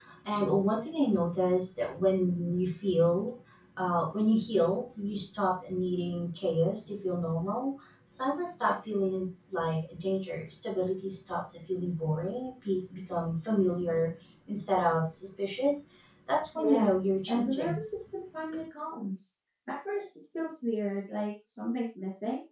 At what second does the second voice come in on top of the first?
16.6 s

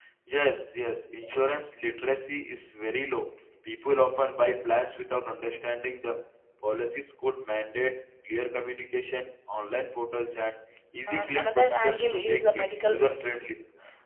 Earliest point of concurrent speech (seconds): 11.1 s

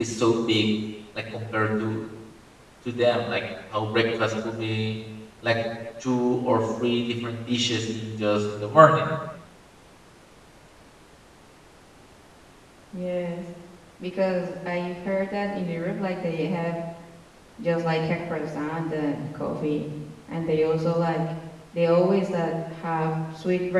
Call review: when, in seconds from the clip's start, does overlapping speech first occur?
none

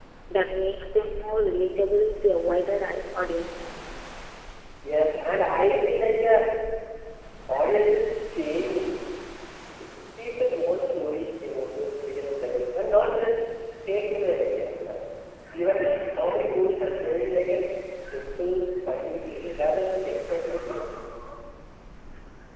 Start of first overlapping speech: none

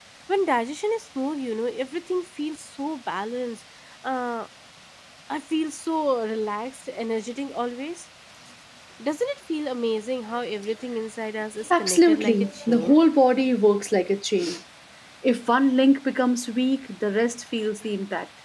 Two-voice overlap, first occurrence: 11.6 s

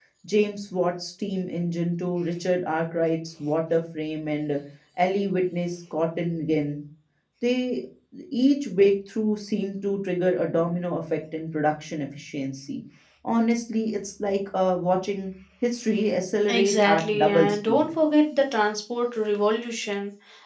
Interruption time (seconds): 16.5 s

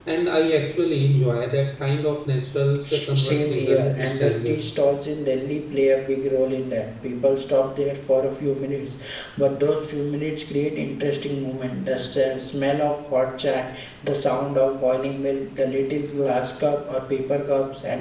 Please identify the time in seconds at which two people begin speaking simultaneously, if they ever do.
3.1 s

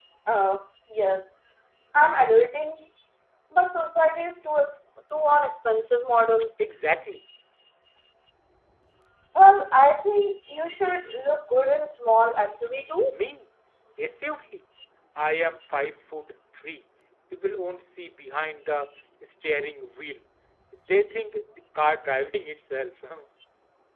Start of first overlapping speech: none

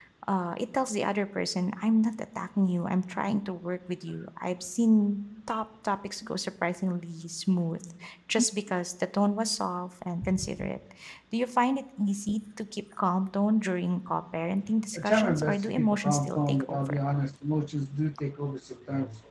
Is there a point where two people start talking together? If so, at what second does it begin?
14.9 s

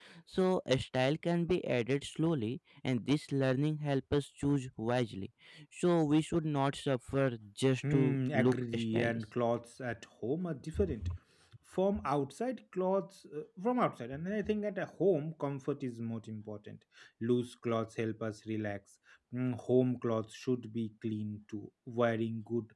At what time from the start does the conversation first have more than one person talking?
7.9 s

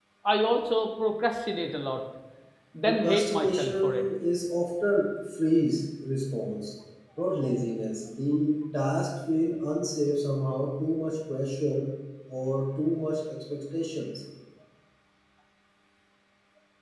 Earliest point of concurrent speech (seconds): 2.9 s

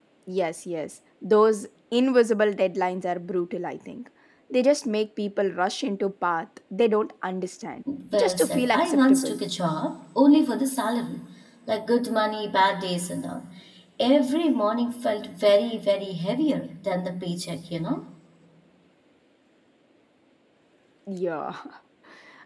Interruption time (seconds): 8.1 s

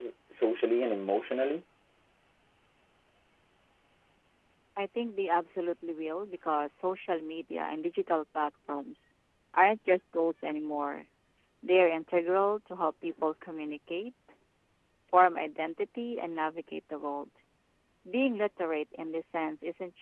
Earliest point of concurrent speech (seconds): none

